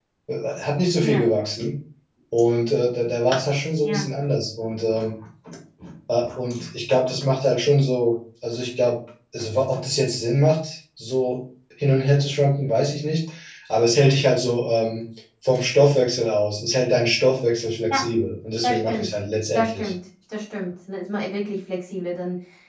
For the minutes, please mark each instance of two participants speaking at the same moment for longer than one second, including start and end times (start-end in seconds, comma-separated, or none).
none